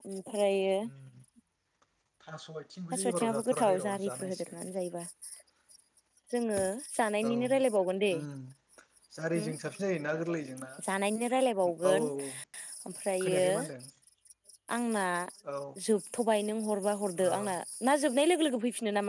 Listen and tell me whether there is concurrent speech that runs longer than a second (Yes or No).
Yes